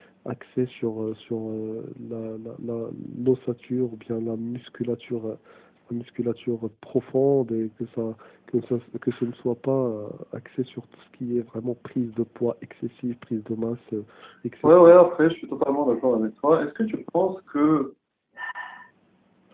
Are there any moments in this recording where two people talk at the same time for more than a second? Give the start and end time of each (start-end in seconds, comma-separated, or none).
none